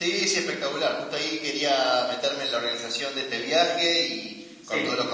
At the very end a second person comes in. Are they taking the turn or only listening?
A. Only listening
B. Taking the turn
A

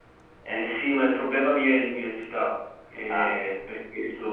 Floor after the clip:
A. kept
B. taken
A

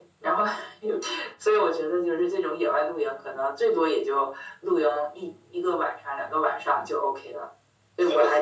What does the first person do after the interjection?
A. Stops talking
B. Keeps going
B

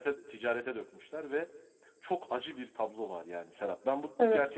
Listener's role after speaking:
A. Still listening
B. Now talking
A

